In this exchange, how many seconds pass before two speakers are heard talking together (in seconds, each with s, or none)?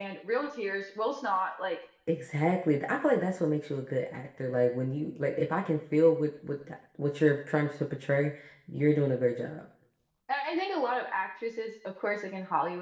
none